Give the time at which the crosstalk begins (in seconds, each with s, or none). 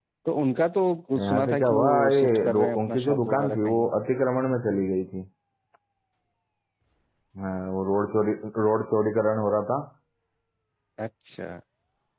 1.2 s